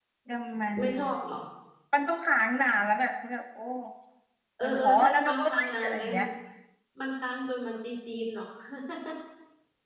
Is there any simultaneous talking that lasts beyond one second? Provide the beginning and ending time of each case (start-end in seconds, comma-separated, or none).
4.6-6.1